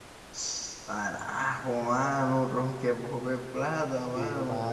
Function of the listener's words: taking over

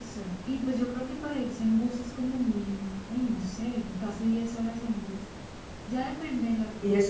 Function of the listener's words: listening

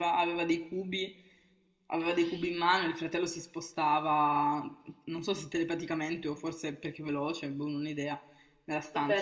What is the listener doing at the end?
taking over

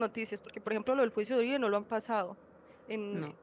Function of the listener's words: listening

